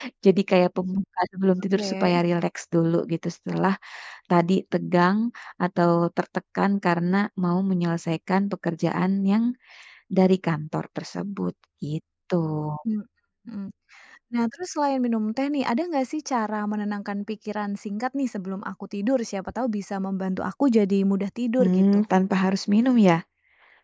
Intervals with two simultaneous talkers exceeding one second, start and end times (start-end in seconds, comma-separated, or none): none